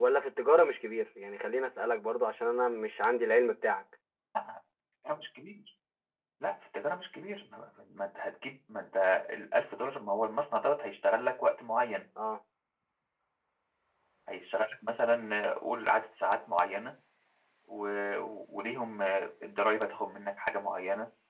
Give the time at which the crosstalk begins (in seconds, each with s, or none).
none